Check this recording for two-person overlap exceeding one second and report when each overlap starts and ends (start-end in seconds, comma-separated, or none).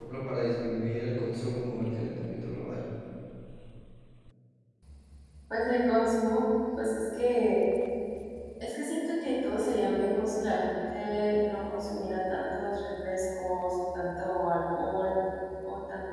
none